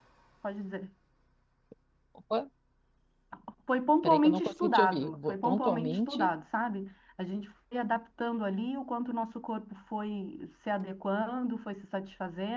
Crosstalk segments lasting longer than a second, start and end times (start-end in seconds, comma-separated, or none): 4.0-6.3